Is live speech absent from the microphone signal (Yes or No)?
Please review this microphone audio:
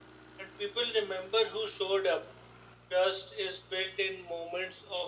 Yes